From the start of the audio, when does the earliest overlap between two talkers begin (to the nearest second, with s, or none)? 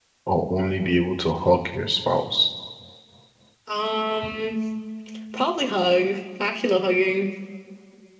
none